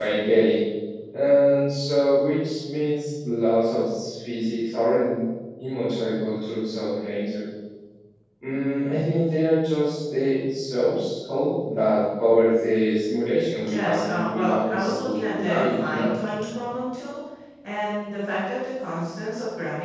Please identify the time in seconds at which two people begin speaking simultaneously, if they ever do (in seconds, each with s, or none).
13.7 s